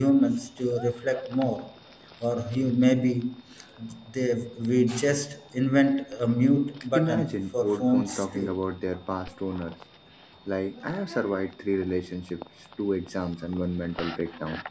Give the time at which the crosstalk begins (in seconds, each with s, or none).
6.9 s